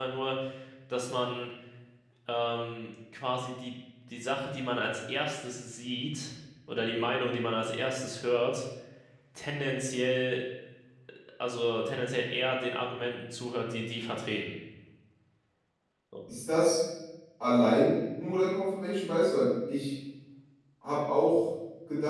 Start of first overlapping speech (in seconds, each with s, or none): none